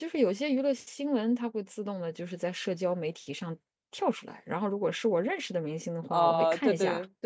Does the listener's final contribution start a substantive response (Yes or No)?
Yes